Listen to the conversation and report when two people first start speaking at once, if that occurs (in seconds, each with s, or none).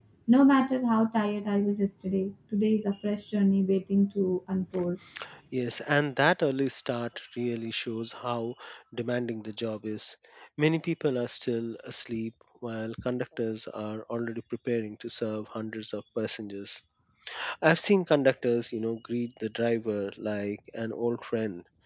none